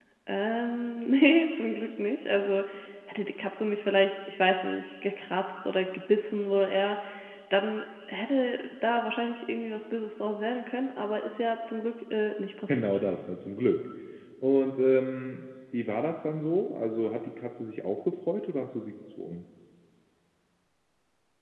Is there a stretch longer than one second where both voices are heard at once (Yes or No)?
No